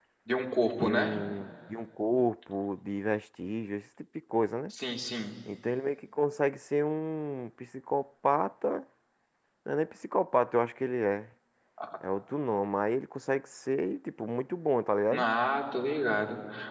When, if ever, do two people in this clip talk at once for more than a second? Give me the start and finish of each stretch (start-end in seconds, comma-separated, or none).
none